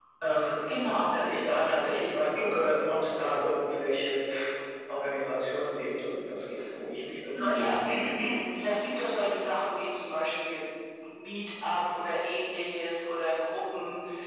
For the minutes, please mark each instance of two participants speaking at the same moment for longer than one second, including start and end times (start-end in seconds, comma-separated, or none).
none